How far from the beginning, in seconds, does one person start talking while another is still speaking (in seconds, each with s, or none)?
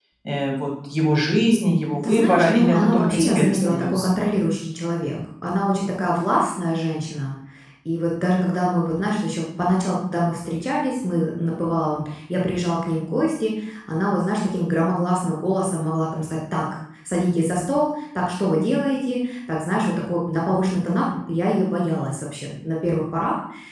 2.0 s